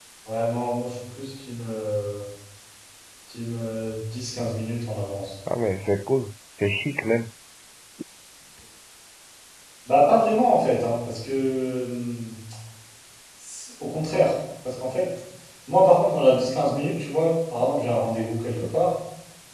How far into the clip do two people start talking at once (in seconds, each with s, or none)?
none